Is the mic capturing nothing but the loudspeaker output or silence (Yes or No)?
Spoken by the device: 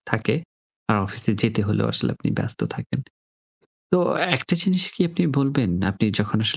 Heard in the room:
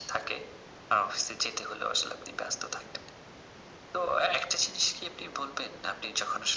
Yes